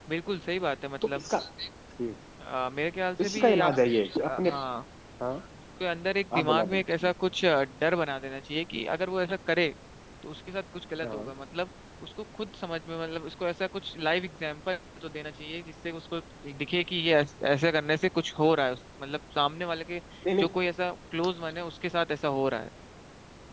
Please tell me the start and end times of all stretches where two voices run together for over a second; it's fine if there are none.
none

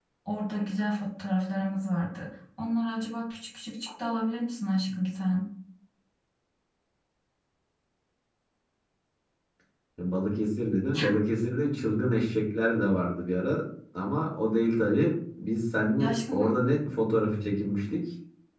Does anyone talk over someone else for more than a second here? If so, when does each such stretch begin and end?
none

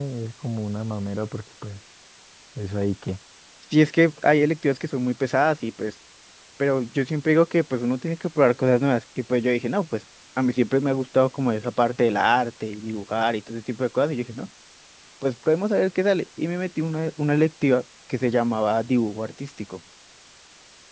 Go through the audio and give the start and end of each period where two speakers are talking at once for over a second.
none

